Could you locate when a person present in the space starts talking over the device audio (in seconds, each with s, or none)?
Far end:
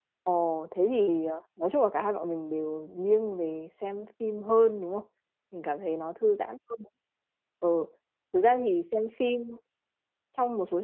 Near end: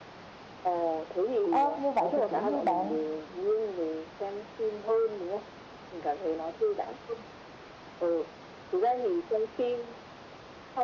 1.5 s